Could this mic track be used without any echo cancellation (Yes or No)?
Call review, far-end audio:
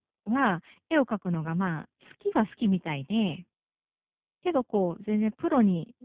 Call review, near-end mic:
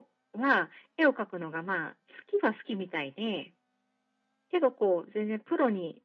No